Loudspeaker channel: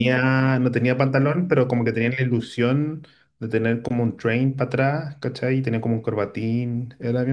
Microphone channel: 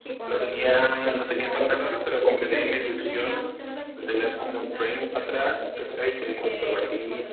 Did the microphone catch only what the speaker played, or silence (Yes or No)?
No